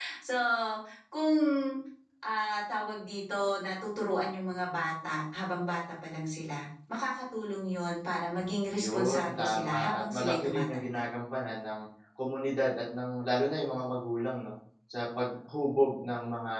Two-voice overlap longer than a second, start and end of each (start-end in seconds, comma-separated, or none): 8.7-11.0